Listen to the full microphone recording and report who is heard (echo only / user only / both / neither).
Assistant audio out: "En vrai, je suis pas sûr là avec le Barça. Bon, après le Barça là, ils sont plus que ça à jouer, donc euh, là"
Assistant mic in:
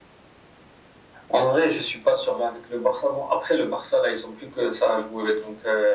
echo only